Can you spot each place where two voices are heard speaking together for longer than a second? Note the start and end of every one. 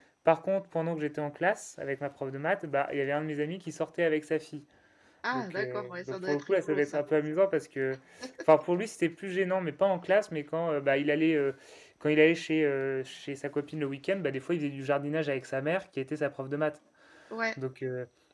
5.3-7.0

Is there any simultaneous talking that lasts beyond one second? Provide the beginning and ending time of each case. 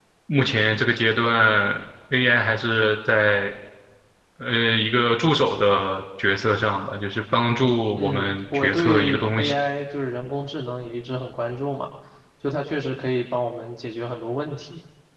8.0-9.5

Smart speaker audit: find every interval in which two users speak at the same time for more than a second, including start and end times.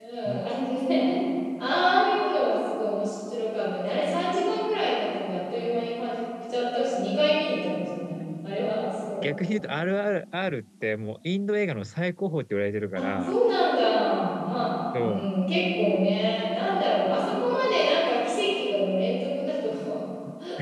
none

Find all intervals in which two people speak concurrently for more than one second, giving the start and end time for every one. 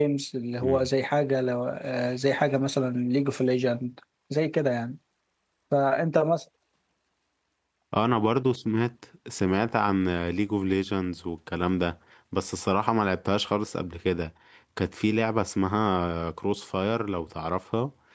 none

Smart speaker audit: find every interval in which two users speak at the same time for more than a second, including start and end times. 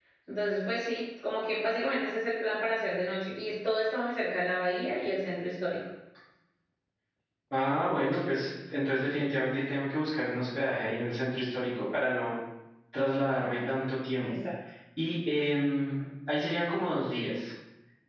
none

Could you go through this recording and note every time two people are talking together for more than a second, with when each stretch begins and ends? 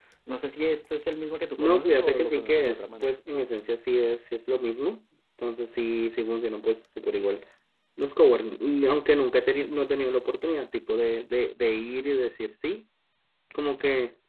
1.6-3.1

